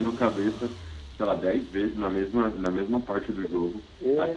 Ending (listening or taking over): listening